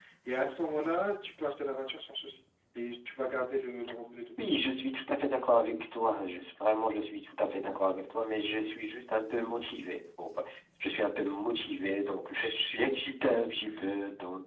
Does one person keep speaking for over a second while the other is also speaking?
No

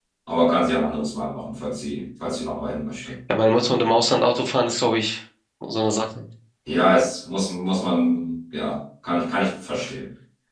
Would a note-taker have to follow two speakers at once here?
No

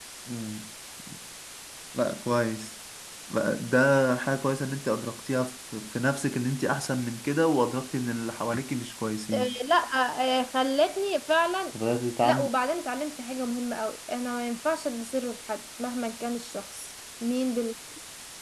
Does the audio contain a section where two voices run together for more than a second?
No

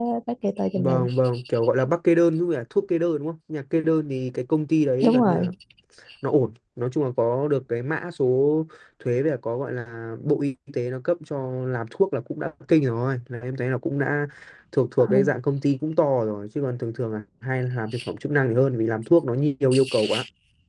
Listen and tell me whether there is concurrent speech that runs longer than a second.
No

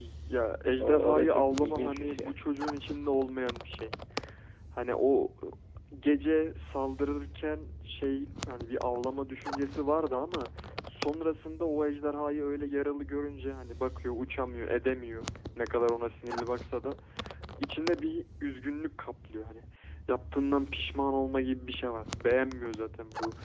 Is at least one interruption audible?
Yes, from 0.8 s

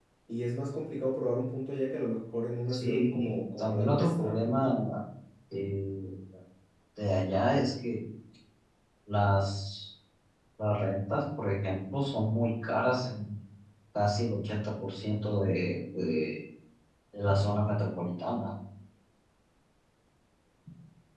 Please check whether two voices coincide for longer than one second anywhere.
Yes, from 2.7 s

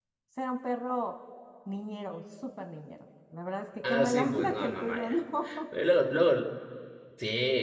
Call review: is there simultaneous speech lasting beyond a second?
Yes, from 3.8 s

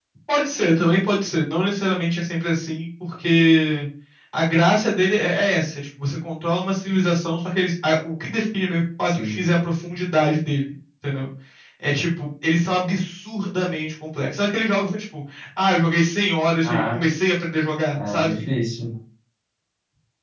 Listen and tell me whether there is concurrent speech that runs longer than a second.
No

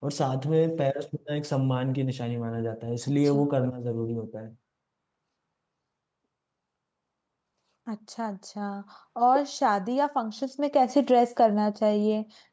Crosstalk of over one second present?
No

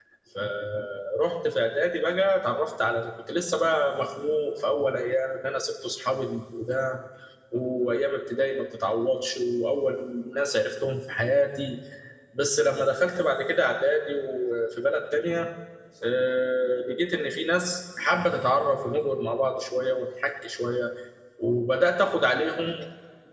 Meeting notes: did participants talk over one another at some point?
No

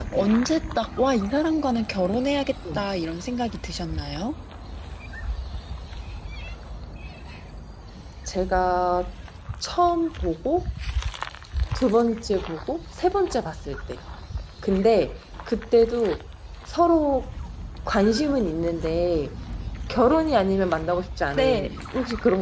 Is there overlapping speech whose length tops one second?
No

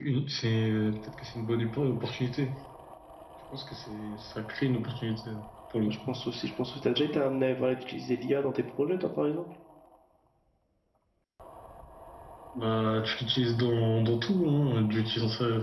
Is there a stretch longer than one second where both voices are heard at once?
No

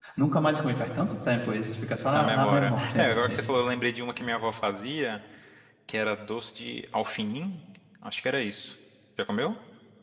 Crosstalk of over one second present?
Yes, from 2.1 s

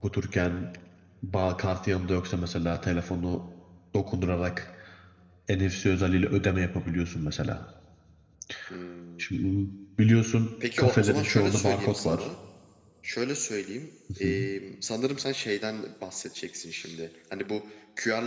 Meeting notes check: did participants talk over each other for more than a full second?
Yes, from 10.8 s

